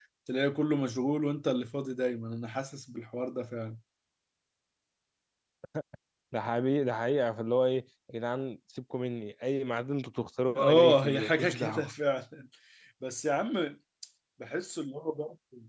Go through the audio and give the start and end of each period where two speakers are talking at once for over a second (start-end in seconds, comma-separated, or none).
10.6-11.9